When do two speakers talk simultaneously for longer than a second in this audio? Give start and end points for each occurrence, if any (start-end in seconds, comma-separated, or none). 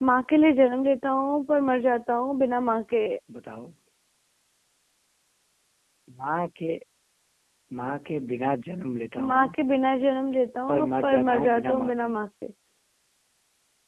10.7-12.1